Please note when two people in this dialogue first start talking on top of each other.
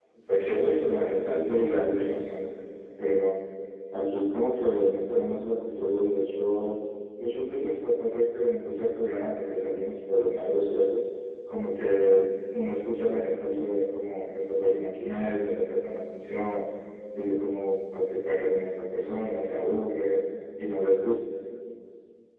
0.9 s

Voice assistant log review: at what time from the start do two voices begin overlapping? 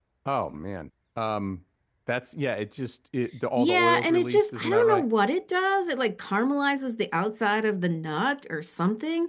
3.6 s

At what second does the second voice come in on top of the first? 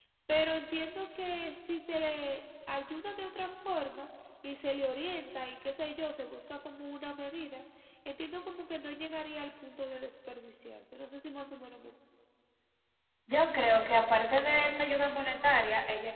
none

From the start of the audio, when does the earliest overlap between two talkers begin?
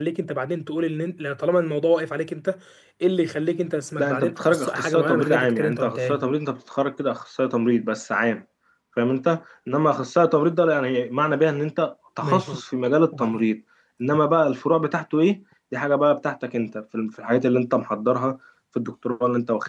4.0 s

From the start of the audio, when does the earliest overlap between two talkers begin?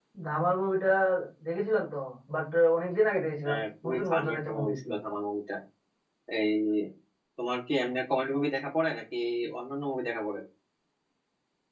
3.5 s

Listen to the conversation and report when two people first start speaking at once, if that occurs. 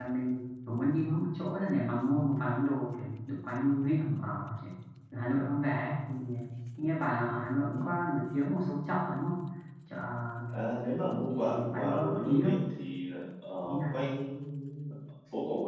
11.3 s

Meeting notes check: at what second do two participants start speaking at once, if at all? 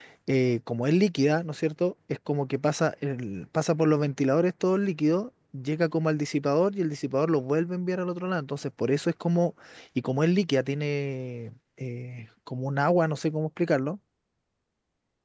none

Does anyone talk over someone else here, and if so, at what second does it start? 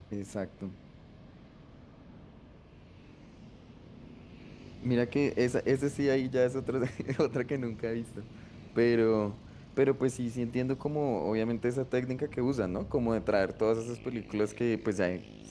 none

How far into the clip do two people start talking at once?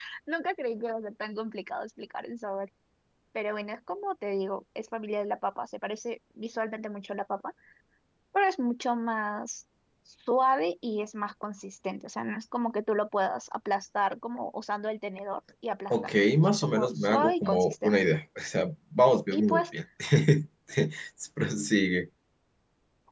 15.9 s

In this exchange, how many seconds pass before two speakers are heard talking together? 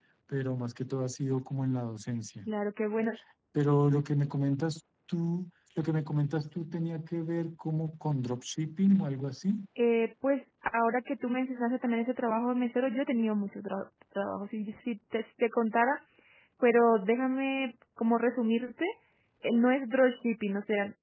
none

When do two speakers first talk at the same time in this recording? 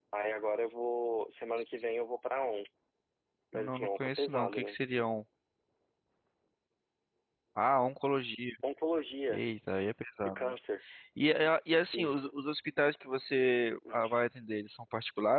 3.5 s

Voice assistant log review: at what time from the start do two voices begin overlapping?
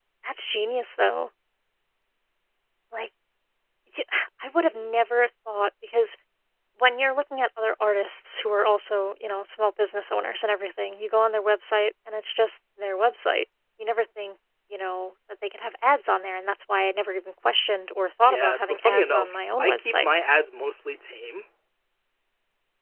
18.3 s

